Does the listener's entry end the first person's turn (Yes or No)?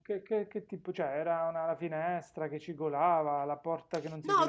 Yes